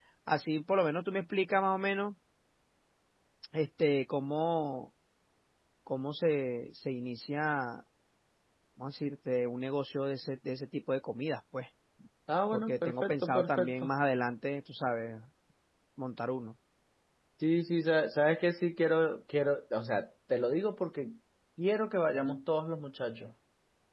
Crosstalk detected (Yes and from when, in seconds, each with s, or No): Yes, from 12.5 s